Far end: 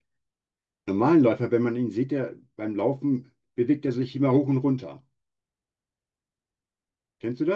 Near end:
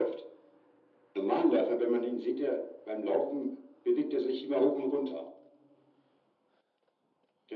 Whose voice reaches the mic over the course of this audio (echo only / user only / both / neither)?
echo only